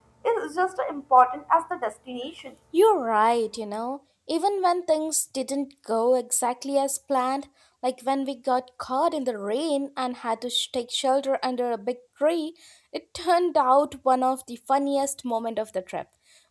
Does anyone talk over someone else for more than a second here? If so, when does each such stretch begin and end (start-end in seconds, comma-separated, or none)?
none